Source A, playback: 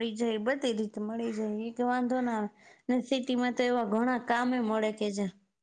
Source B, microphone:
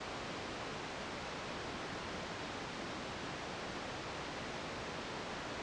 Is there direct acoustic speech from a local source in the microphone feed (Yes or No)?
No